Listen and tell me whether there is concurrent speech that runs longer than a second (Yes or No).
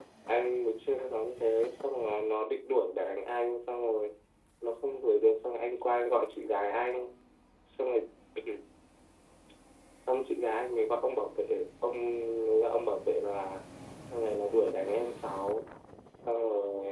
No